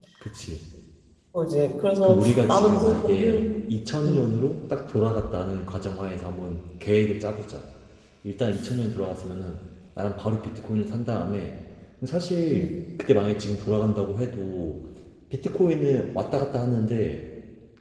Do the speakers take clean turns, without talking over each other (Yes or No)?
No